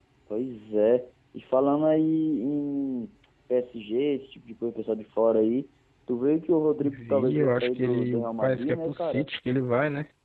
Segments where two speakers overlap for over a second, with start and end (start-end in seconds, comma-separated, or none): 6.8-9.3